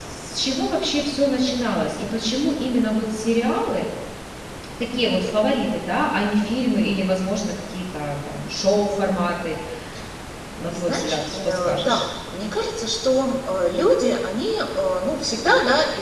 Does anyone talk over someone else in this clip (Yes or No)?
Yes